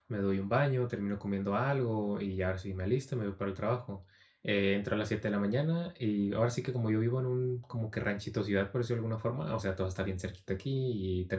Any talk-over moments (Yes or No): No